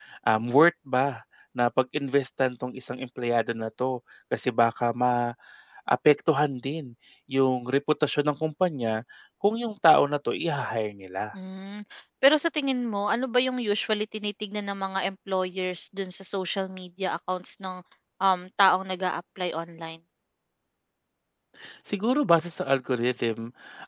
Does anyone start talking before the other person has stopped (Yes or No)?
No